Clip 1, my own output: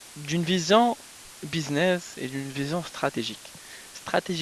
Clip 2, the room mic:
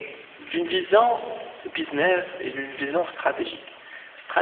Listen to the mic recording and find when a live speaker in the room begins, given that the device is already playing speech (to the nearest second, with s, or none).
none